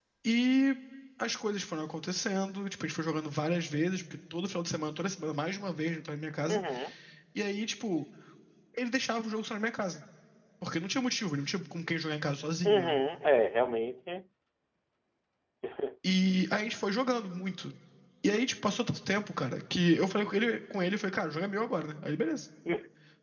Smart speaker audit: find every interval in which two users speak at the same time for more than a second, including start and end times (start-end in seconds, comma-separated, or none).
none